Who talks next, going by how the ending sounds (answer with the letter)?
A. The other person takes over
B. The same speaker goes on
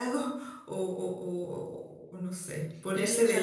B